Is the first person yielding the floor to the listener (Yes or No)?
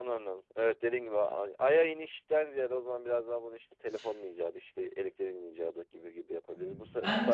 No